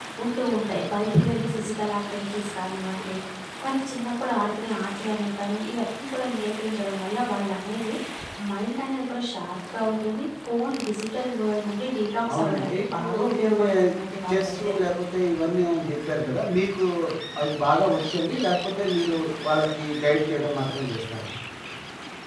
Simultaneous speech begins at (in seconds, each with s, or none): 12.3 s